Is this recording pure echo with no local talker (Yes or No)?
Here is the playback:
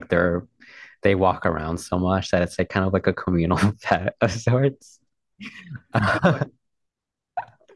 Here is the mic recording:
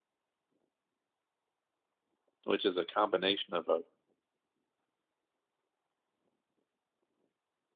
No